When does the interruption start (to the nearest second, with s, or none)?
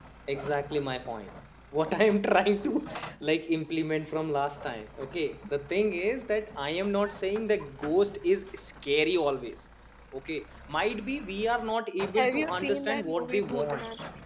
12 s